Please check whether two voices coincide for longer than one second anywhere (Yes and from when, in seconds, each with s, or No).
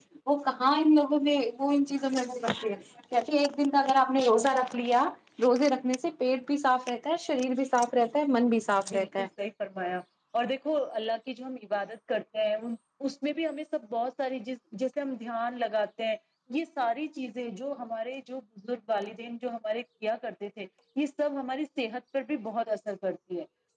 No